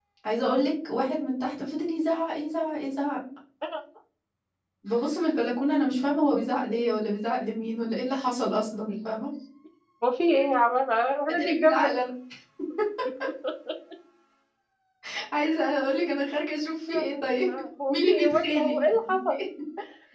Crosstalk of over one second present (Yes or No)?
Yes